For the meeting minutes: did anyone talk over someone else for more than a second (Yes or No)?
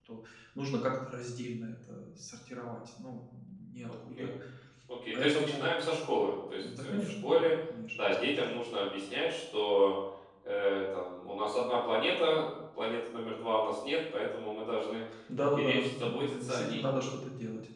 Yes